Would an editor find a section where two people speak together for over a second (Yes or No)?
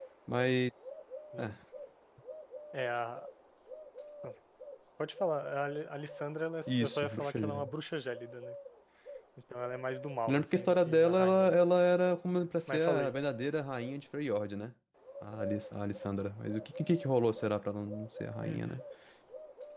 Yes